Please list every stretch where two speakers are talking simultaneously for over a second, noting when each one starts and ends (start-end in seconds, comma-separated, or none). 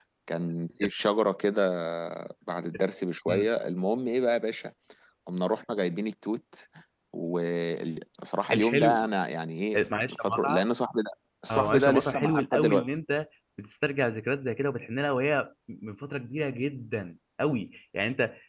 11.5-12.9